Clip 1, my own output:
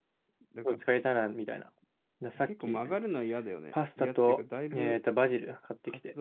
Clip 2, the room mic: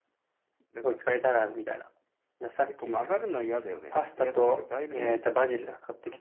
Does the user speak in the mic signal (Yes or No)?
No